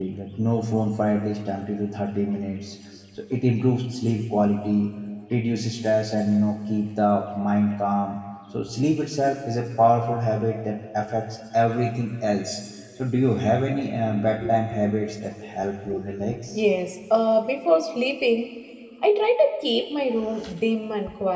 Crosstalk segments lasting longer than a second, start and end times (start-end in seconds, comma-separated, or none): none